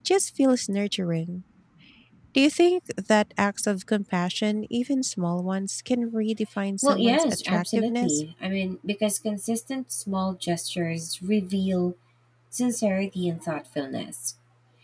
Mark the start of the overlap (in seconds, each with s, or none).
6.8 s